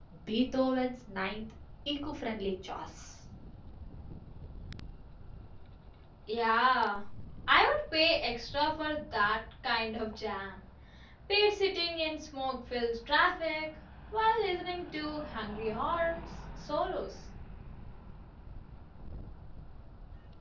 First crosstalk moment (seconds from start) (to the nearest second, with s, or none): none